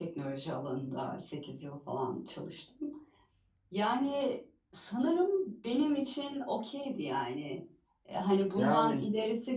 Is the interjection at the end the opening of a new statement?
No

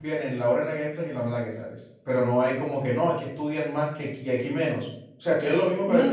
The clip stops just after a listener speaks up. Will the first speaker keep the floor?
No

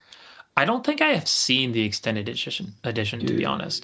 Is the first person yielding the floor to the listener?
No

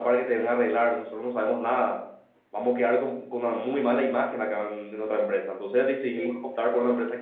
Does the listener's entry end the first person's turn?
No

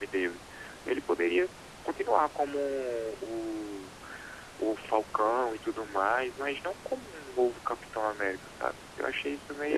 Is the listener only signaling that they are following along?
No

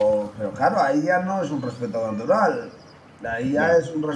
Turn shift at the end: No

